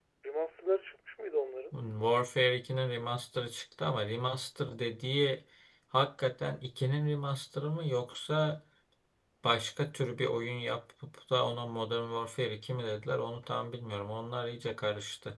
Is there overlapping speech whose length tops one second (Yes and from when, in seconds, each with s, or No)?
No